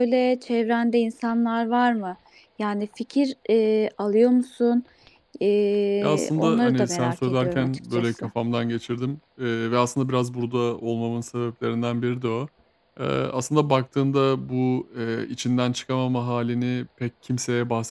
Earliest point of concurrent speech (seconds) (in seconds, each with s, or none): 6.0 s